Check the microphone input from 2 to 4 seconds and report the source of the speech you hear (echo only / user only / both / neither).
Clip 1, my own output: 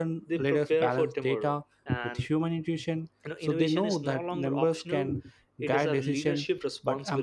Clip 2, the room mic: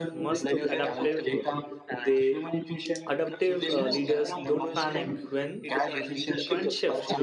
both